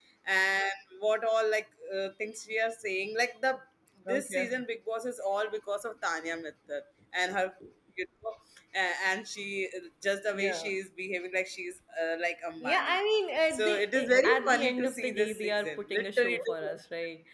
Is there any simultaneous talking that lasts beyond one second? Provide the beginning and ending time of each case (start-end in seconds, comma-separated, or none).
13.5-16.8